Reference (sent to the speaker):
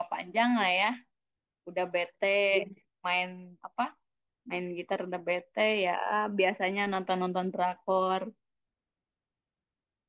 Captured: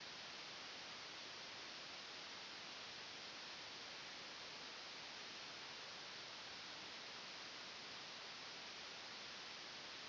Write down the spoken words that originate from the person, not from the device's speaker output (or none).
none